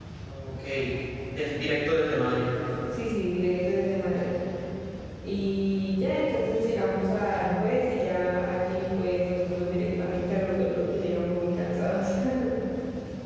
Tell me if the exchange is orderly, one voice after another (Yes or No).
Yes